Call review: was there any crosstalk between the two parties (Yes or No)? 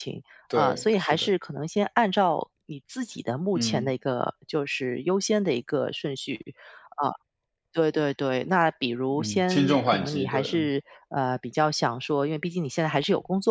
Yes